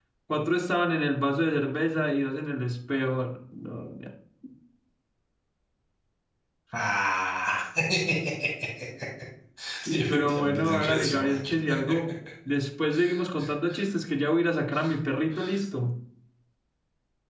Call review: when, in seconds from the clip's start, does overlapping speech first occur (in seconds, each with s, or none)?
9.9 s